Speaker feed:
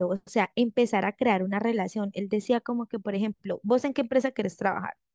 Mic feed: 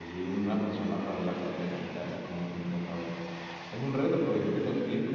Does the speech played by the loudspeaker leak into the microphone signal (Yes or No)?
No